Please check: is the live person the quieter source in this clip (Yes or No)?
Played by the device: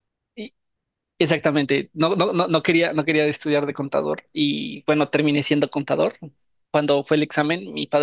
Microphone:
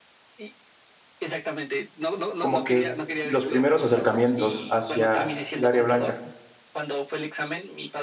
No